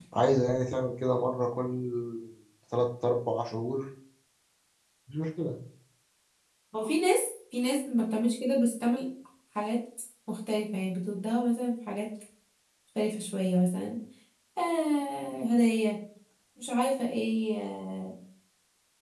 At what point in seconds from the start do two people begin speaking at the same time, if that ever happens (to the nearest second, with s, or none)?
none